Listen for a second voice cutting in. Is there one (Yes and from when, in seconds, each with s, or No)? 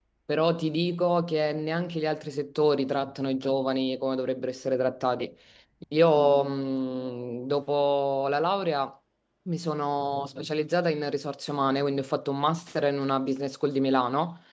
No